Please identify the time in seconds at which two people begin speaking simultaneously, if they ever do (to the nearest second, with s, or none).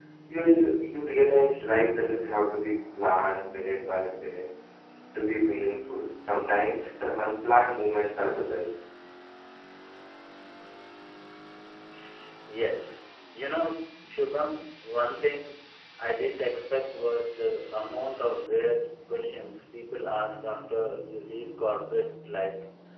none